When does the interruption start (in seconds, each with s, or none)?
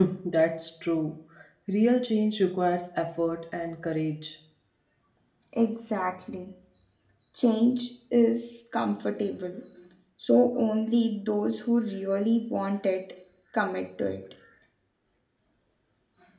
none